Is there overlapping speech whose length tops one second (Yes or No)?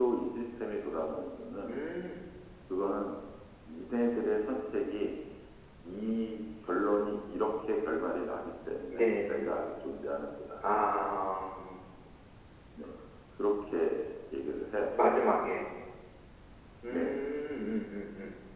No